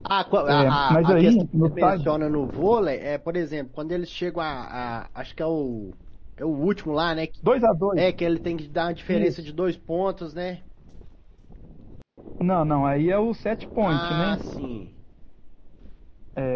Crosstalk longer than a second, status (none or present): present